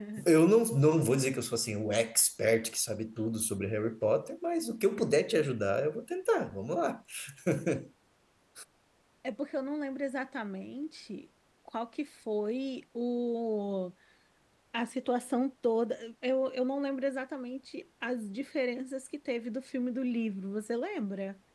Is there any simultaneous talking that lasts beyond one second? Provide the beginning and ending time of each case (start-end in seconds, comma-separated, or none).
none